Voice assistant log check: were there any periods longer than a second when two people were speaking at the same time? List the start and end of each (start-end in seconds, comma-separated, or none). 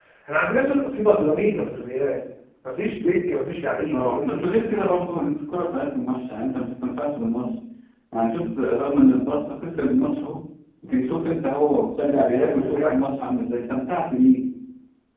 none